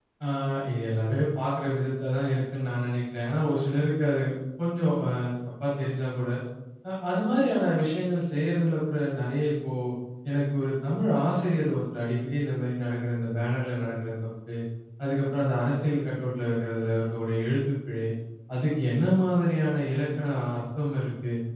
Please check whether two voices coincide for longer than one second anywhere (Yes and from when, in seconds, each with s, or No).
No